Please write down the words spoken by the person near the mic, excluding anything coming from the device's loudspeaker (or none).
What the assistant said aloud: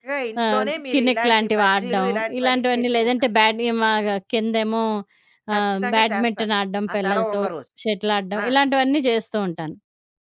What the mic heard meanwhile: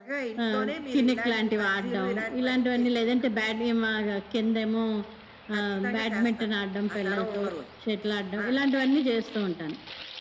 none